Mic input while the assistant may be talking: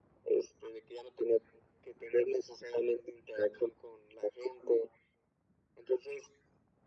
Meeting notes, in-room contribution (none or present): none